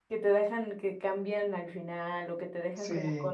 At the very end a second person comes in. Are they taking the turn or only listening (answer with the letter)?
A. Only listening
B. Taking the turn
B